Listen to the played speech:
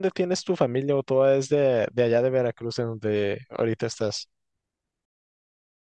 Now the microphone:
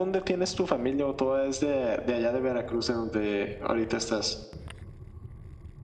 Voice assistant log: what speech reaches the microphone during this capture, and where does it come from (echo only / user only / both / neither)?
echo only